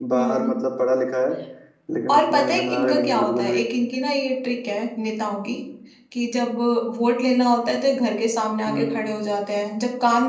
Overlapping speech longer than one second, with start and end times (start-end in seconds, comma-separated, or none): 2.1-3.6